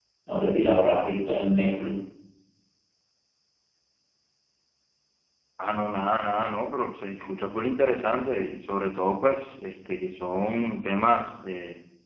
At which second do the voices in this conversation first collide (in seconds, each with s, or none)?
none